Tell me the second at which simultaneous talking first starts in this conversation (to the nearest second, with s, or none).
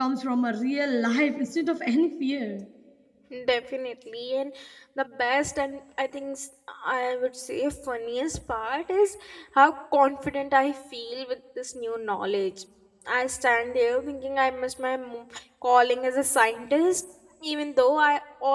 none